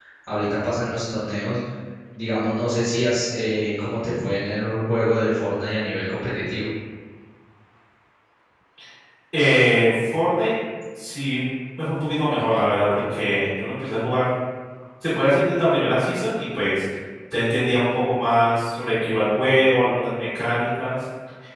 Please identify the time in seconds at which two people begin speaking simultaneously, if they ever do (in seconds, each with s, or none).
none